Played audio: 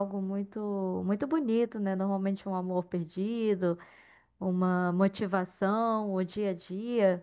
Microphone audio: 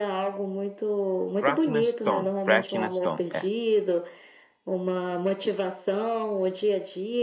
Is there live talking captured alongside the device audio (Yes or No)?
Yes